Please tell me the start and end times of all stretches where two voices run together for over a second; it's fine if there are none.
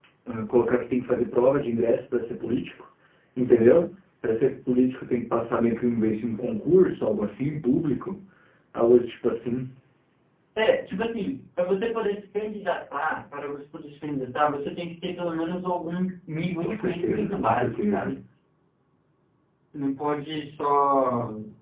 16.6-18.1

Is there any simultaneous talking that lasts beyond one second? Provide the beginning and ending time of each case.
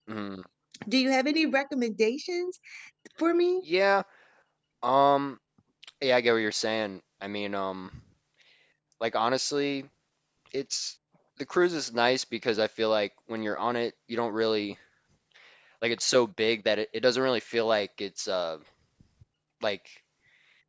none

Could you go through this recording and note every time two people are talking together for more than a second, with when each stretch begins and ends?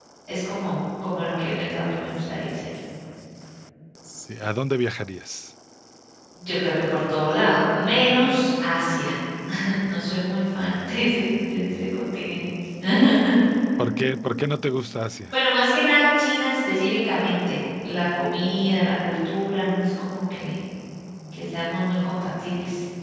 none

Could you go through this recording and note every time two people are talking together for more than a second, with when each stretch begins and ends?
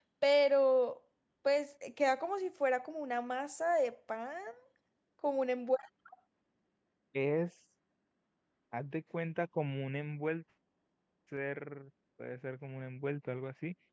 none

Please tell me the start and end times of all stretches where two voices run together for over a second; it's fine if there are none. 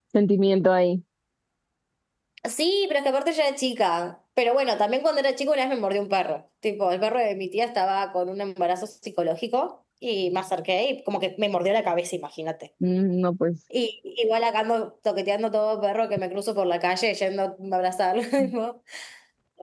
none

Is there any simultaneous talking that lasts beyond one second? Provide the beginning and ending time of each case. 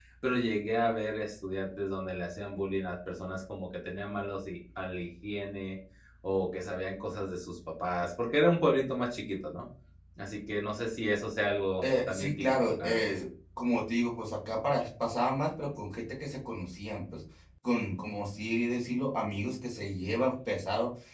11.8-13.0

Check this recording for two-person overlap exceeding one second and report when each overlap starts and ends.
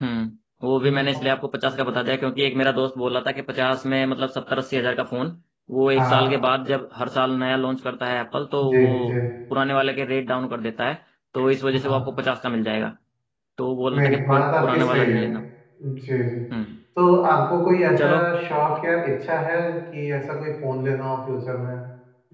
13.9-15.2

